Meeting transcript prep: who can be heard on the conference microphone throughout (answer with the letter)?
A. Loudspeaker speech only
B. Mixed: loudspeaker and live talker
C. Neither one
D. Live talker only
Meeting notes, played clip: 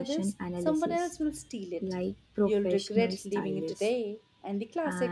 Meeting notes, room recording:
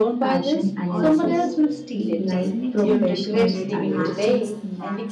B